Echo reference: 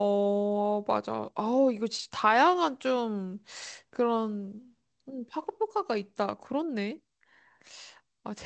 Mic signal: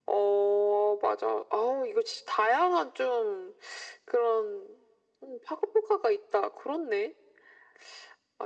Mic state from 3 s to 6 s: echo only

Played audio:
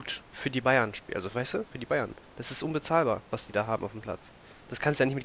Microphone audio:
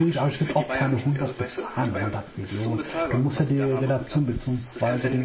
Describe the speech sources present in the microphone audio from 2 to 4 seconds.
both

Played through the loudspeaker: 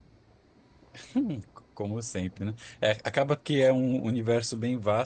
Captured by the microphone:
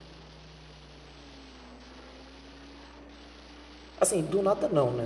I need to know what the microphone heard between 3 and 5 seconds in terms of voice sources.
user only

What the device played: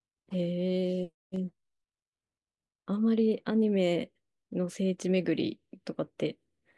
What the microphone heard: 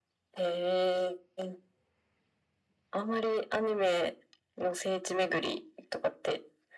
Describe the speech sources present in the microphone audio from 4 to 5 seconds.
echo only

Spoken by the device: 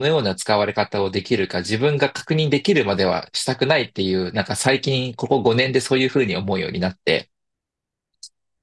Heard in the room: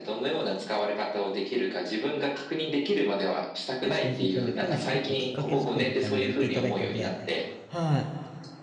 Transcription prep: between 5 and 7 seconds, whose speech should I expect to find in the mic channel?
both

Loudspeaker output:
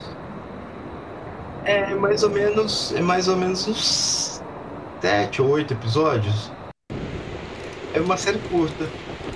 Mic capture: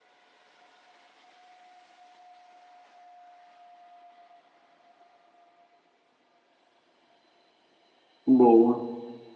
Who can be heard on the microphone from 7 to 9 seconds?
user only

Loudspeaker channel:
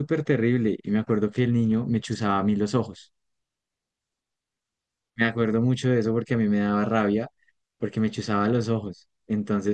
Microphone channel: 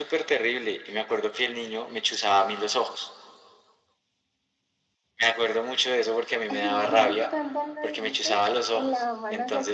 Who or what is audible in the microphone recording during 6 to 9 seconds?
both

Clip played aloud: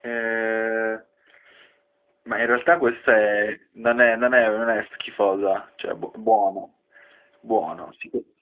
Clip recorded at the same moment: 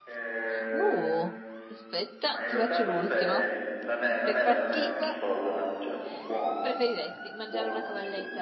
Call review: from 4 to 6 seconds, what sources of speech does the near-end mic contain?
both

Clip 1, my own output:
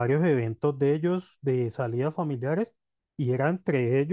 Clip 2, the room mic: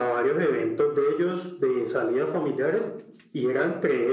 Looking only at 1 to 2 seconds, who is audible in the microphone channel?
echo only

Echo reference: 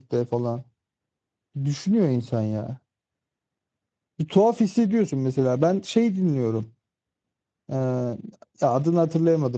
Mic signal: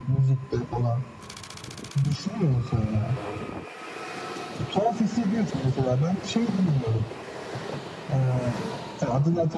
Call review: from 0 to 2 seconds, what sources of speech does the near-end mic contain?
echo only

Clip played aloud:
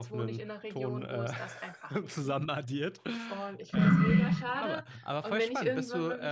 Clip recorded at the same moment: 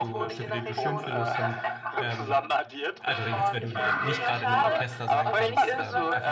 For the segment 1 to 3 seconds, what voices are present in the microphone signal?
both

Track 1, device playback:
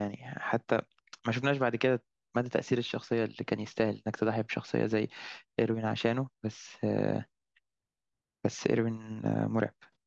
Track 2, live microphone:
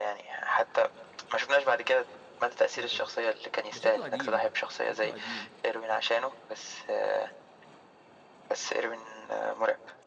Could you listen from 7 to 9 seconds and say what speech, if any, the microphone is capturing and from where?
echo only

